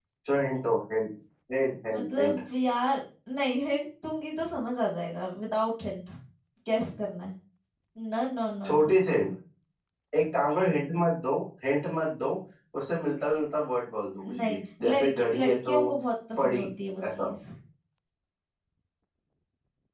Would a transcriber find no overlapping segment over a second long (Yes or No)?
No